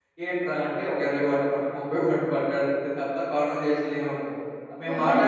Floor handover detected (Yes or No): Yes